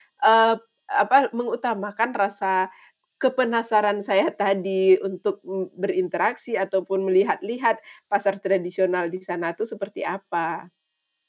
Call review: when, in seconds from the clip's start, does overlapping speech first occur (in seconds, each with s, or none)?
none